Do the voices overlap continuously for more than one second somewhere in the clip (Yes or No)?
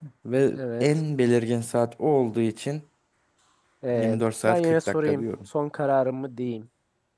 Yes